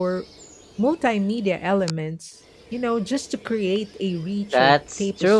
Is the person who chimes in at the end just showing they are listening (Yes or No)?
No